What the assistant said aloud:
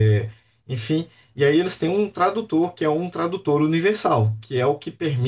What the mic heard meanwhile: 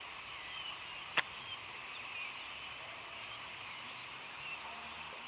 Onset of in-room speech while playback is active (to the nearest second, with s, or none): none